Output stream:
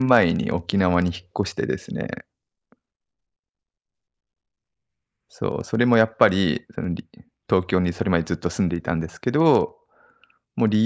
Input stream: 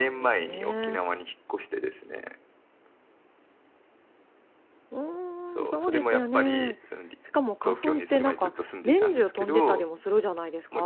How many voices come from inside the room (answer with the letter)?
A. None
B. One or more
B